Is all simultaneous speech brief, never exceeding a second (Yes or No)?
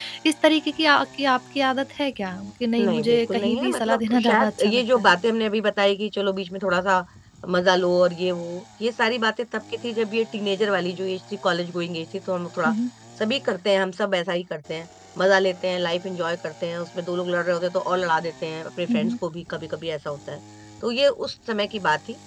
No